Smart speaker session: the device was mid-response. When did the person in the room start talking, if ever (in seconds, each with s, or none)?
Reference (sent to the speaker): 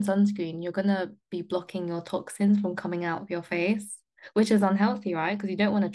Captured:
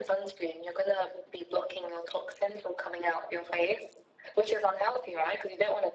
none